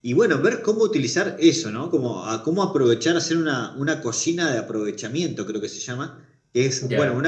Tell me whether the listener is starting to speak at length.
No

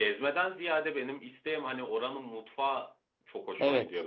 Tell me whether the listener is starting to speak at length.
Yes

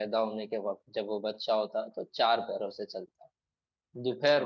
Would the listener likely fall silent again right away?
Yes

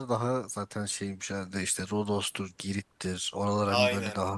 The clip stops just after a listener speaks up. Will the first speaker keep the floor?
No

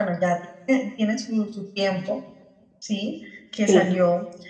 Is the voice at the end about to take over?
No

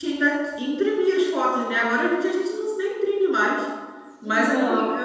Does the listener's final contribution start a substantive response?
No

